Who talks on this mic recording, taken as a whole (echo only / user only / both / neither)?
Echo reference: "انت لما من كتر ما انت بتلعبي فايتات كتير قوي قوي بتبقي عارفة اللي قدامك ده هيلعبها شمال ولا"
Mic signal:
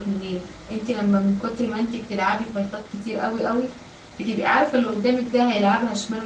echo only